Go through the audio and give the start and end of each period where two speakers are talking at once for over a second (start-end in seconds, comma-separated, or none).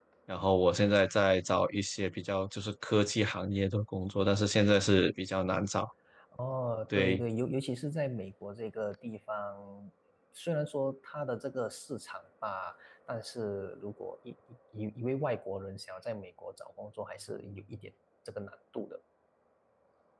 none